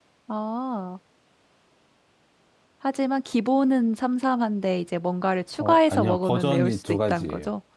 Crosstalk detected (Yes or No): Yes